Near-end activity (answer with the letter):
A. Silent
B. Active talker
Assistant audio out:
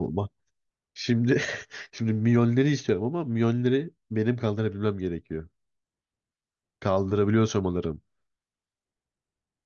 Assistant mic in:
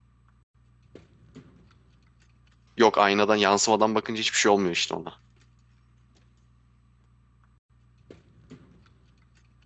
B